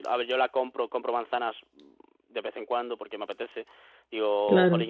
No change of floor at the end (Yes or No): Yes